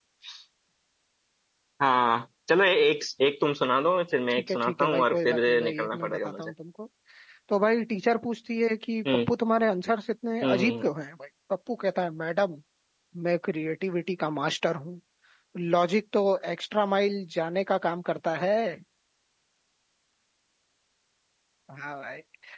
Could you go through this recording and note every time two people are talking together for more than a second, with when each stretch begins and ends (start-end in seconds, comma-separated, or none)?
4.3-6.5